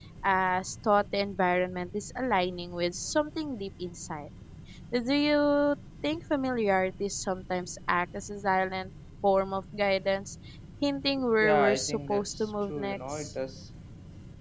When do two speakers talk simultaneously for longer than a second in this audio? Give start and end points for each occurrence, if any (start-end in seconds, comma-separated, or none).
11.4-13.3